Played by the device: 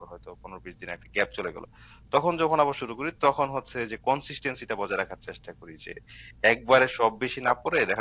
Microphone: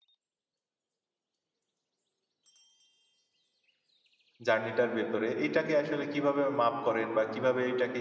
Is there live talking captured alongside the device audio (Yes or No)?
Yes